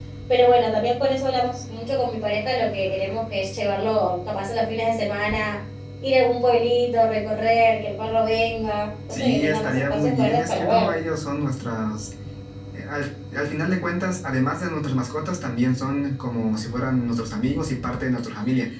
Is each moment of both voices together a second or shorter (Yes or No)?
No